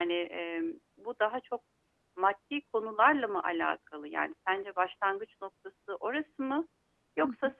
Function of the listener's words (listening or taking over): listening